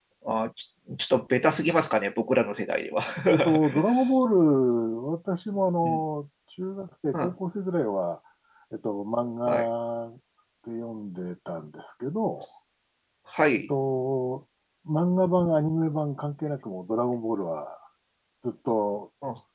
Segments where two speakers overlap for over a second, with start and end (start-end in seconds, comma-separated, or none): none